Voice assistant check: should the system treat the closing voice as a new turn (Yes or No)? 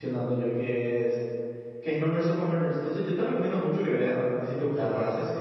Yes